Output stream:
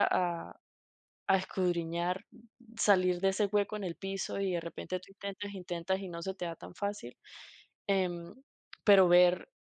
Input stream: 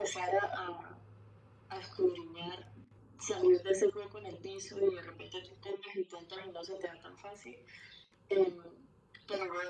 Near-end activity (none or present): none